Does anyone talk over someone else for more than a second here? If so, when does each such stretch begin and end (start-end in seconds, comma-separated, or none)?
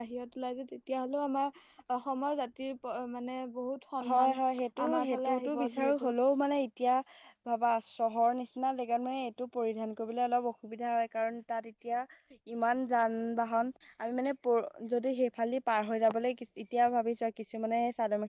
4.9-6.1